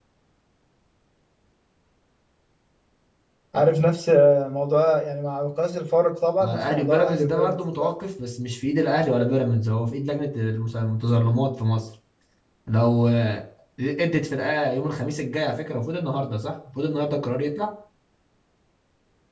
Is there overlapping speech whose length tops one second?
Yes, from 6.4 s

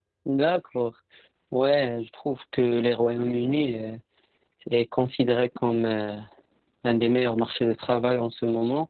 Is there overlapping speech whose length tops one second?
No

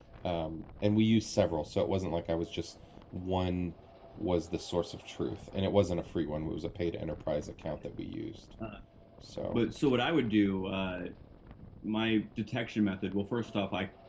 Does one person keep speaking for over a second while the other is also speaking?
No

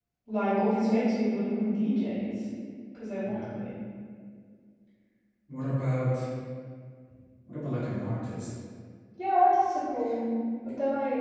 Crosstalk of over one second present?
No

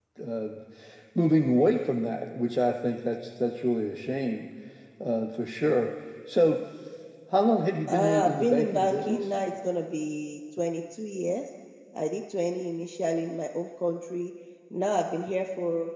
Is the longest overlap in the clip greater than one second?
Yes, from 7.9 s

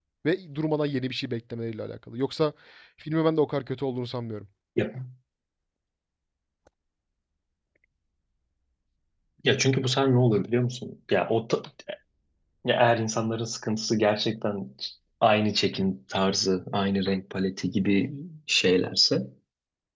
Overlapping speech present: No

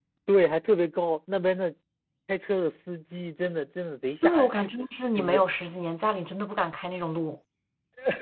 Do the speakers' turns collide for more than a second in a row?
No

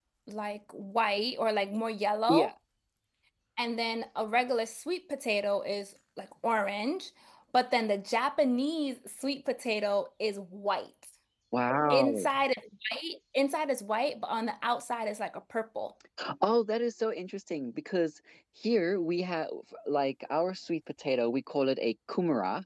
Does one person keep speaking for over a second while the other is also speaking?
No

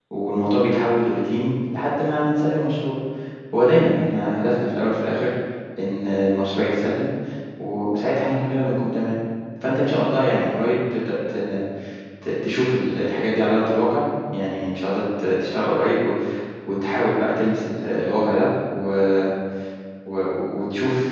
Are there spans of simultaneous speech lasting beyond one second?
No

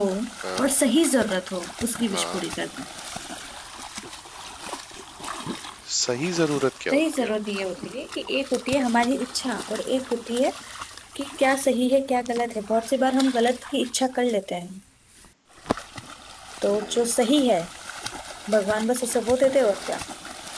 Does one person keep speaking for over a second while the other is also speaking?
No

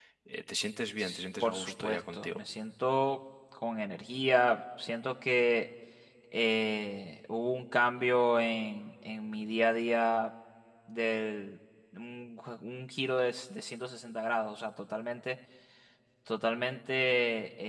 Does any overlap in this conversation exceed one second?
Yes, from 1.0 s

